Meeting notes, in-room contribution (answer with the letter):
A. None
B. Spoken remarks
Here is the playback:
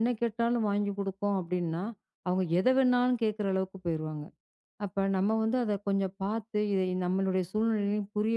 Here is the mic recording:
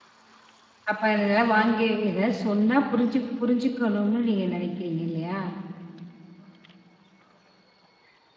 B